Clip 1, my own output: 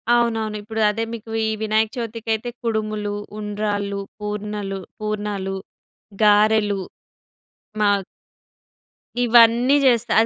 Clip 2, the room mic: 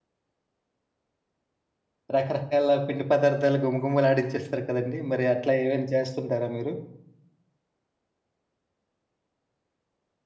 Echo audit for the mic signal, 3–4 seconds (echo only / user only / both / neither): user only